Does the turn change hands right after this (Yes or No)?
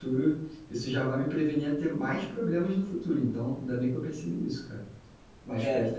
No